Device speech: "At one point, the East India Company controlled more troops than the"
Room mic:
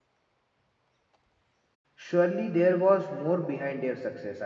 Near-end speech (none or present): present